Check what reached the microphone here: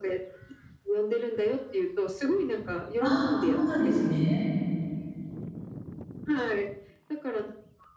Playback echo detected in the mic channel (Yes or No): Yes